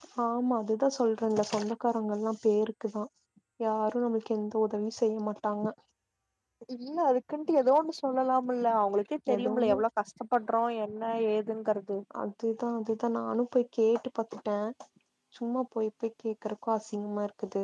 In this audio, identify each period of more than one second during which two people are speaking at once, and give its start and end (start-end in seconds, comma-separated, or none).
none